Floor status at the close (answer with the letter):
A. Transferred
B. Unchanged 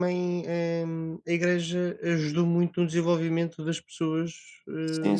A